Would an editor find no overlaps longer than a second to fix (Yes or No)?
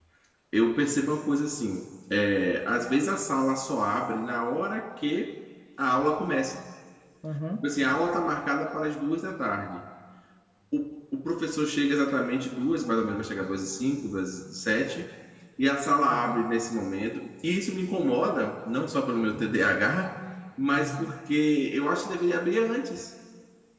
Yes